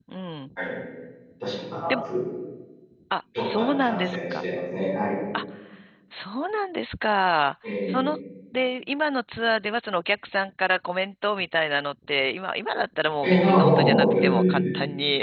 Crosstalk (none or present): present